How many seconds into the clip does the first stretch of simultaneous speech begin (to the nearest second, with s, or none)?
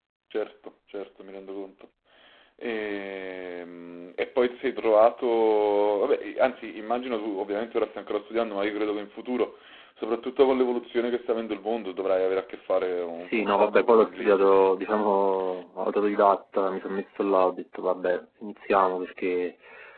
13 s